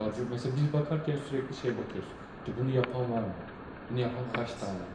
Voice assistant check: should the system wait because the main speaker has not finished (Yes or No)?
Yes